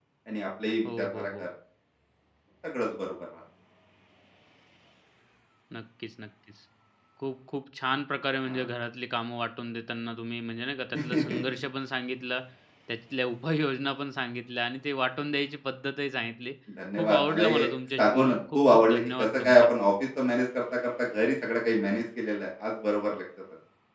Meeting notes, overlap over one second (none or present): present